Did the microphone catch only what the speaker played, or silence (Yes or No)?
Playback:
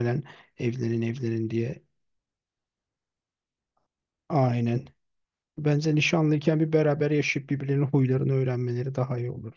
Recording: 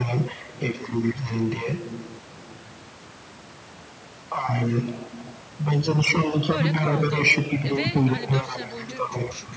No